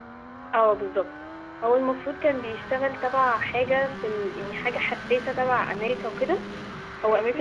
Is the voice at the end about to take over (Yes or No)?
No